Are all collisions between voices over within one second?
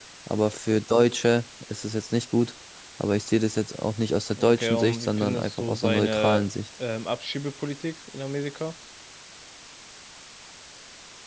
No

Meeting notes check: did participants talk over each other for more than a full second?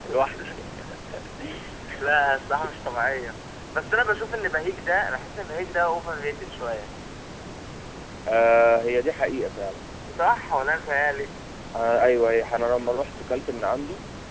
No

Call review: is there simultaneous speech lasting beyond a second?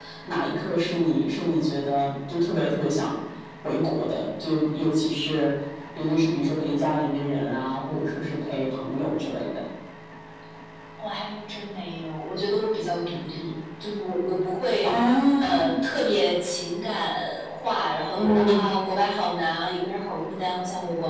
No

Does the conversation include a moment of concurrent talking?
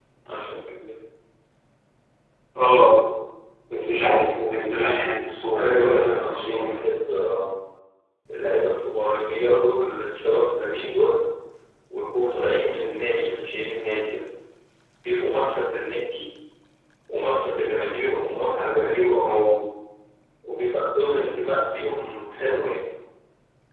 Yes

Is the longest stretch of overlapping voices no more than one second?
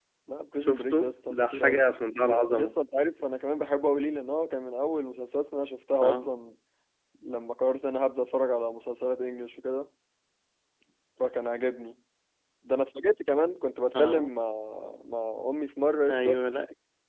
Yes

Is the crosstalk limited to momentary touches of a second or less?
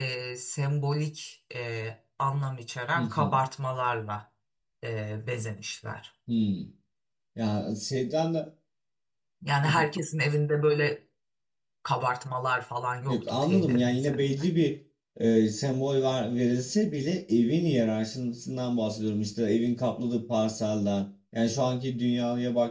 No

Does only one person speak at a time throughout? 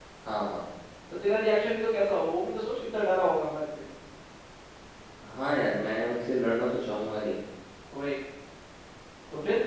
Yes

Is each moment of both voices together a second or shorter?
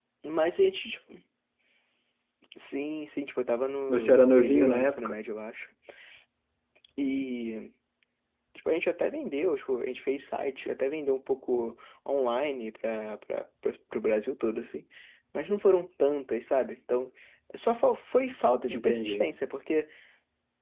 No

